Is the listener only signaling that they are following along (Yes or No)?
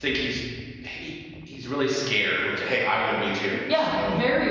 No